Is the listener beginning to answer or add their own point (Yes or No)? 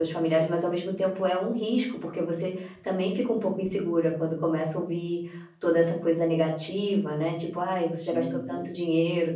No